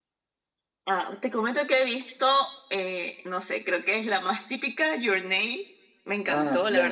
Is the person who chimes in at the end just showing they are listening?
Yes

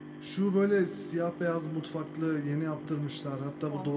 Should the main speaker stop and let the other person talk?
No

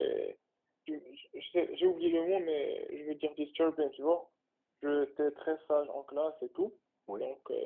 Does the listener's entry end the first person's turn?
No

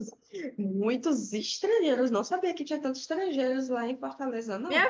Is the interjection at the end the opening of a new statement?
Yes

